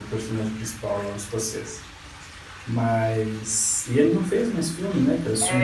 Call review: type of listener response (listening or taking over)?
taking over